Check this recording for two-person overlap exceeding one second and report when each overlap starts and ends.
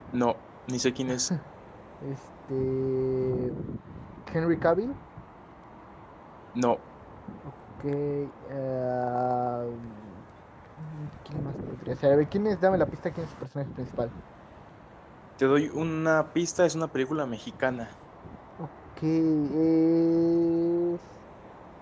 none

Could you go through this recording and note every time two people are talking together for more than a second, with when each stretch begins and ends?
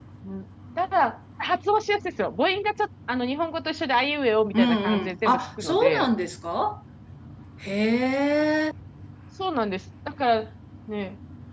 4.5-6.1

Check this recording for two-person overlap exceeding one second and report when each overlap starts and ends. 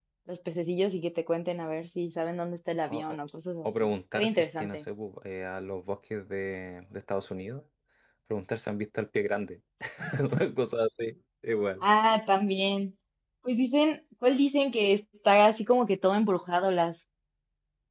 3.6-4.8

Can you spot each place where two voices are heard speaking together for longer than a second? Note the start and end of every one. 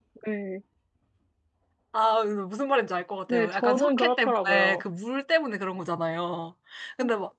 3.3-4.8

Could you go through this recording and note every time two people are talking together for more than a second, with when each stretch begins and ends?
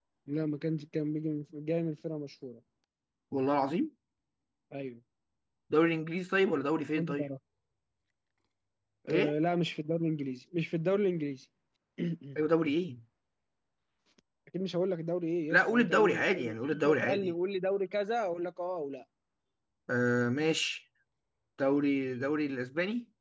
15.5-17.3

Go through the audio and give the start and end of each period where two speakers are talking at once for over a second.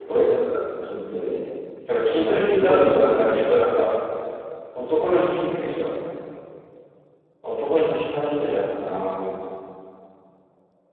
2.1-3.3

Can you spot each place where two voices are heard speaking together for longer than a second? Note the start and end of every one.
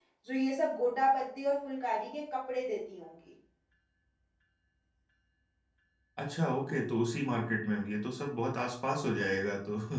none

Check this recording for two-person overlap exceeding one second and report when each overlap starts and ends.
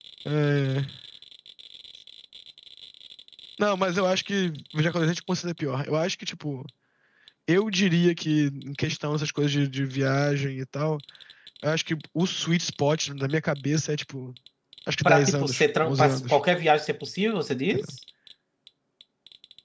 15.1-16.4

